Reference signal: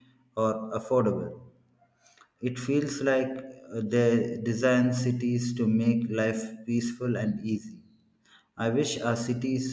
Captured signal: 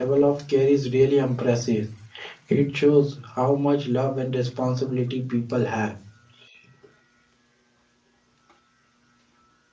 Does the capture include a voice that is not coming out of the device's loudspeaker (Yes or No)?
Yes